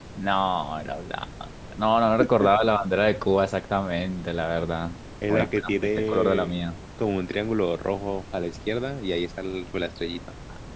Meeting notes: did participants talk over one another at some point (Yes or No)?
Yes